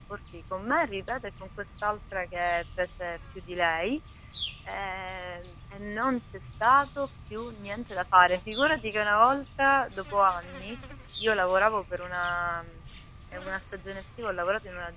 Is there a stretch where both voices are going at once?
No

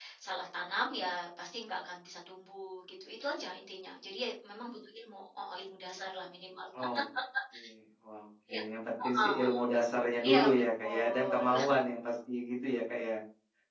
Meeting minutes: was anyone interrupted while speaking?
Yes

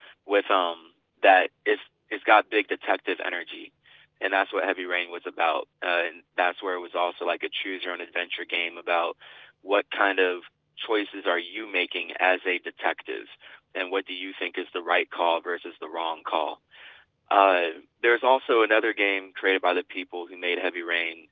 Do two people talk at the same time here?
No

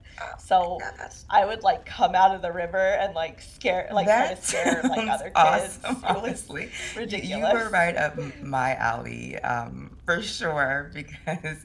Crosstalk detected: Yes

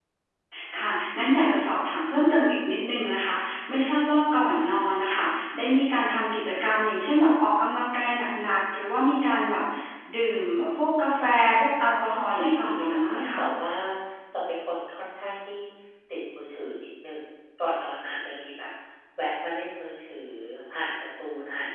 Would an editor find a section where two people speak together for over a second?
Yes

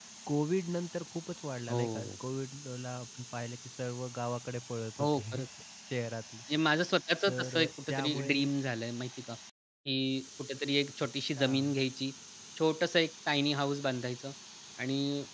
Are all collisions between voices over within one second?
No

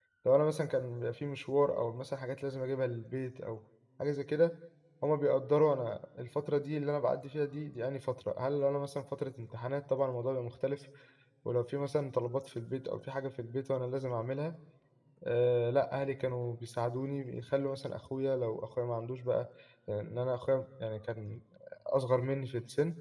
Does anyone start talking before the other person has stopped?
No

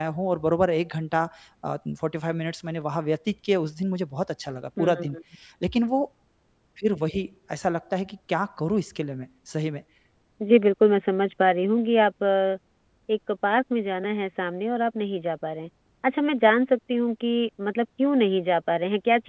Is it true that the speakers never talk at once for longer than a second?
Yes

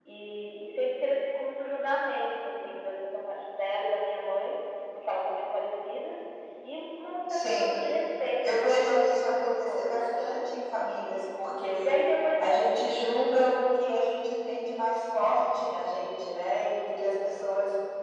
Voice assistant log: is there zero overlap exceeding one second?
No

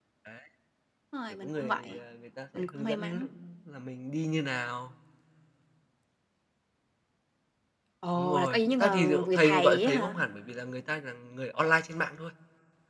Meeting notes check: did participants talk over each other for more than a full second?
Yes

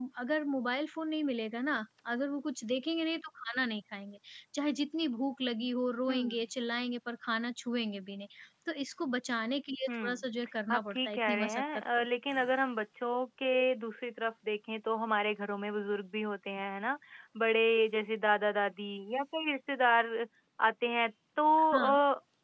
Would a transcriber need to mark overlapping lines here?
Yes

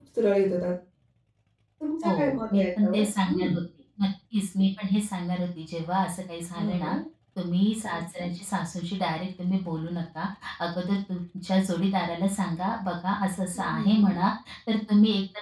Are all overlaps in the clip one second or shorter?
No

